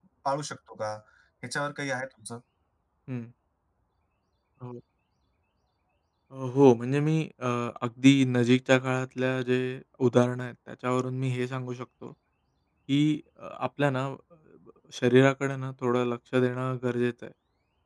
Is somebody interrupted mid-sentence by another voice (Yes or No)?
No